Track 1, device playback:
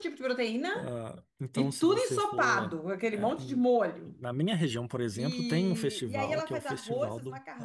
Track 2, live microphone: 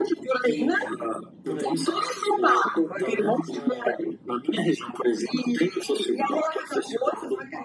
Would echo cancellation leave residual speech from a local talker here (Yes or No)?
Yes